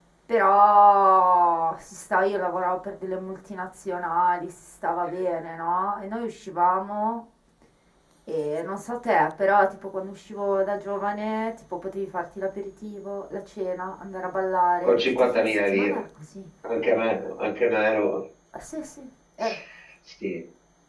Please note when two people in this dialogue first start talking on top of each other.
14.8 s

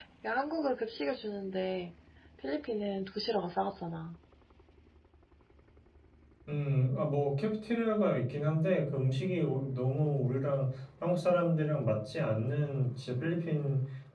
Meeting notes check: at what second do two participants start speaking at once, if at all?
none

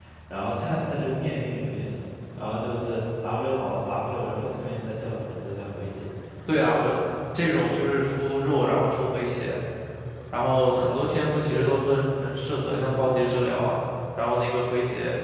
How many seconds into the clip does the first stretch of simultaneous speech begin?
none

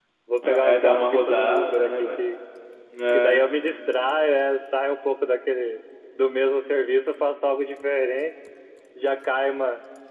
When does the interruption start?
0.7 s

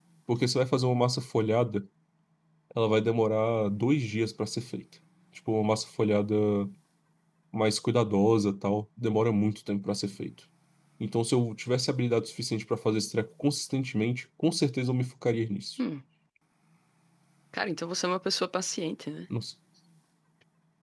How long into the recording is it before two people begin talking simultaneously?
none

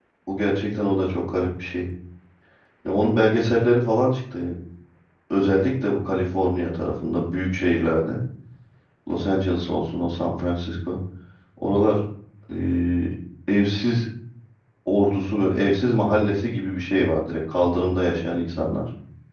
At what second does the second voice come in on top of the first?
none

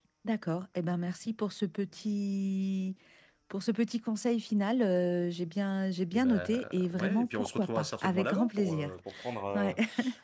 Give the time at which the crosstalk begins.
6.1 s

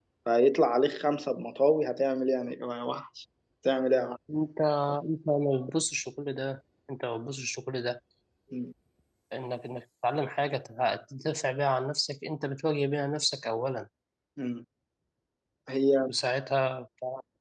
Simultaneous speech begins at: none

